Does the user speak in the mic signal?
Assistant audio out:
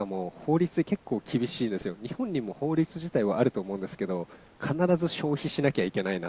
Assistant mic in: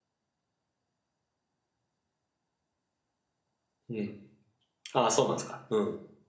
Yes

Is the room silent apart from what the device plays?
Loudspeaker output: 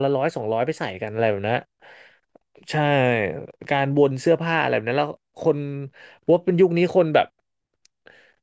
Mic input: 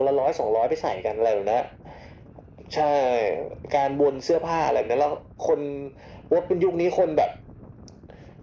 Yes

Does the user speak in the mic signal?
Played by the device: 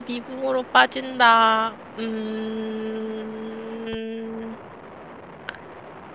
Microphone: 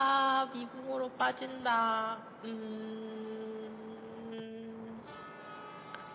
No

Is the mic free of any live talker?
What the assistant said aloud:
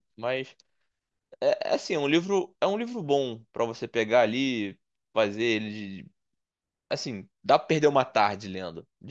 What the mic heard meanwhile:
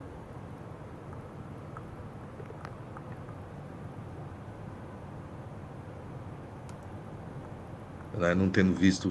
No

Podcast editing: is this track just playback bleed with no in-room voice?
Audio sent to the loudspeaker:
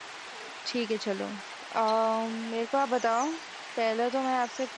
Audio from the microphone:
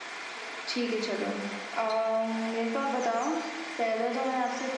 Yes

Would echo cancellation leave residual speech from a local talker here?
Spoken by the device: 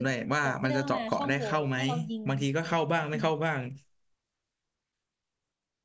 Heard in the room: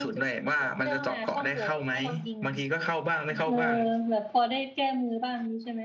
Yes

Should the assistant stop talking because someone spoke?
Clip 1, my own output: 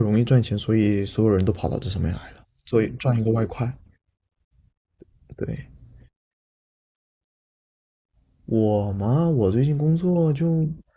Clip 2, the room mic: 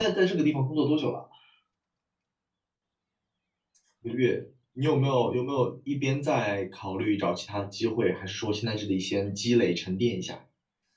Yes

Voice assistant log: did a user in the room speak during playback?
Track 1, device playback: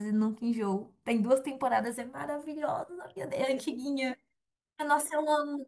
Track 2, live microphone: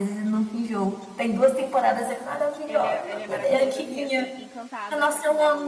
Yes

